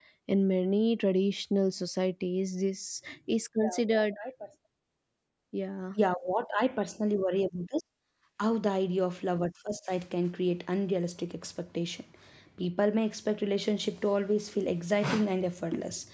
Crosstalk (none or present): none